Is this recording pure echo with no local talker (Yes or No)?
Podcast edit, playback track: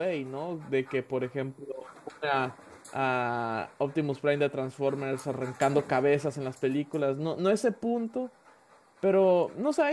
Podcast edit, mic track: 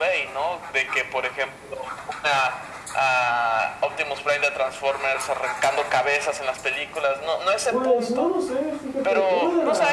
No